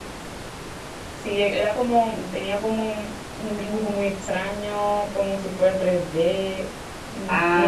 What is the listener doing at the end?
taking over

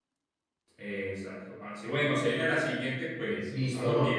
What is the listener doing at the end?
taking over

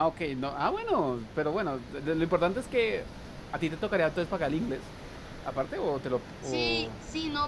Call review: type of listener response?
taking over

